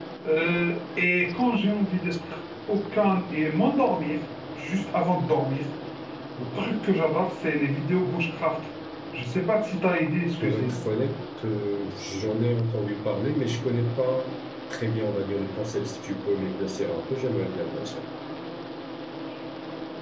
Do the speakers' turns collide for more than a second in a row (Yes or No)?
No